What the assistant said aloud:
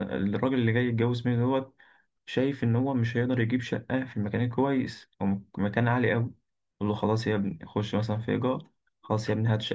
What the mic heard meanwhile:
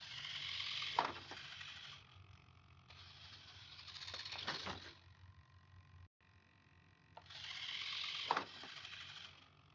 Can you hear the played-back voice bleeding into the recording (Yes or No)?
No